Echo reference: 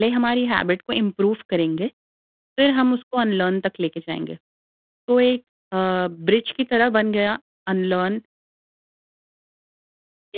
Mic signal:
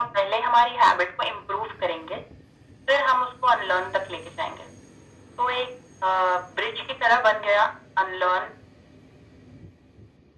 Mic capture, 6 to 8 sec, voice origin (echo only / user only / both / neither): echo only